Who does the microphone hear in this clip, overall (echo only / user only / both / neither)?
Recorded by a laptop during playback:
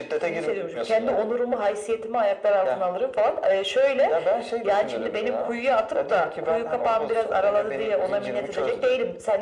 echo only